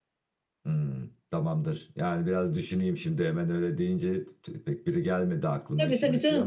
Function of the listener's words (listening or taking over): taking over